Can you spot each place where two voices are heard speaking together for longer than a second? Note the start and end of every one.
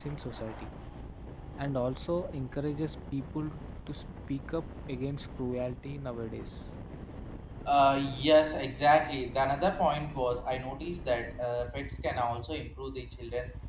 none

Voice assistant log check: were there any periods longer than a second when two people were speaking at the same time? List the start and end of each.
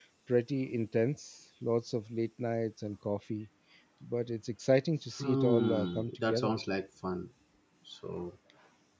5.2-6.6

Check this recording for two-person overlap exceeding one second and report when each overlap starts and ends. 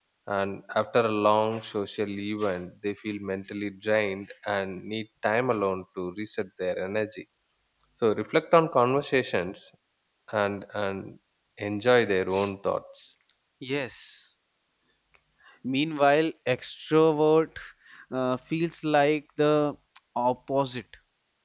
none

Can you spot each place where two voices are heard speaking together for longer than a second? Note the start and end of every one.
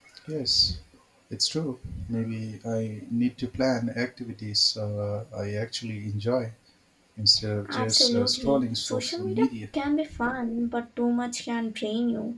7.7-9.5

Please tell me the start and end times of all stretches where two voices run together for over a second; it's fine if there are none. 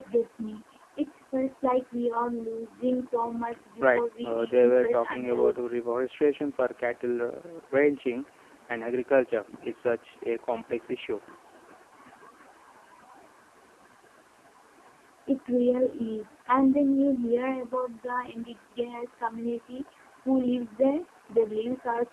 3.8-5.6

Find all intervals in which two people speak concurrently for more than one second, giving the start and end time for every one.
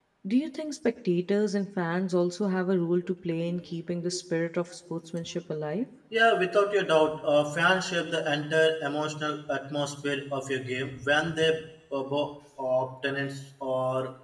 none

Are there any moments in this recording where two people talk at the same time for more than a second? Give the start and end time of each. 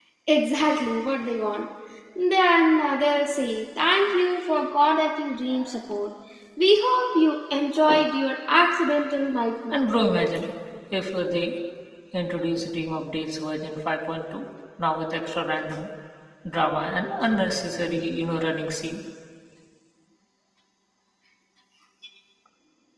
none

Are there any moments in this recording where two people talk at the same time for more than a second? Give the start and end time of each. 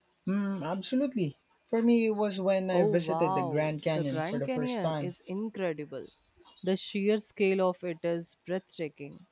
2.7-5.1

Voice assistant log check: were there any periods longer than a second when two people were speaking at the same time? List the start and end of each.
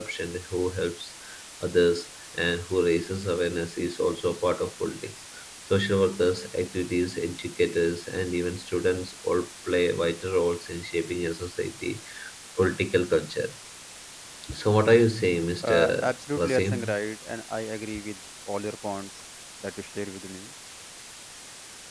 15.6-16.9

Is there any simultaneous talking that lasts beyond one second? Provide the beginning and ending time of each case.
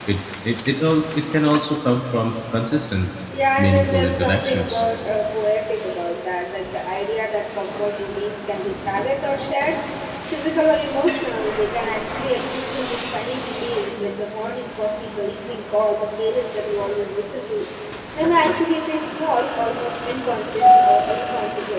3.6-4.8

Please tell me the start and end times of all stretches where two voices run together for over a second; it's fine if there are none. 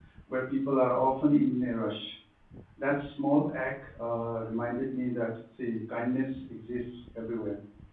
none

